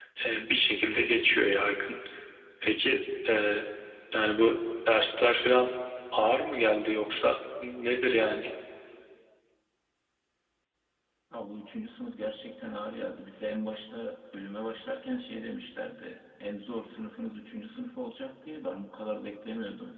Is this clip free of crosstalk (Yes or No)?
Yes